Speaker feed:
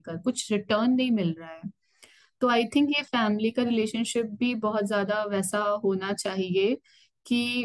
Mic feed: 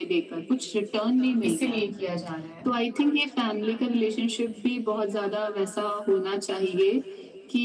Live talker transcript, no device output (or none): इसीलिए किया जा रहा है